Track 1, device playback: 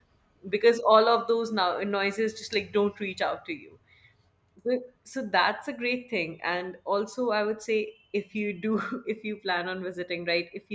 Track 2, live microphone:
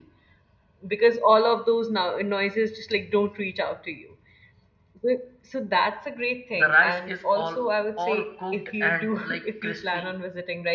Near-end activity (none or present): present